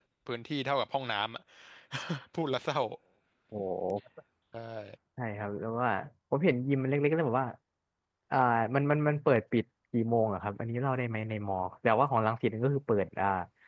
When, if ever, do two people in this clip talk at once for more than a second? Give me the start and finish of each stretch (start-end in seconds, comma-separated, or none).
none